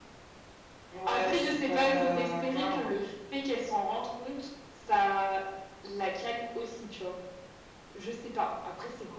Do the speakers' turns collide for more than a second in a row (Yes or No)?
Yes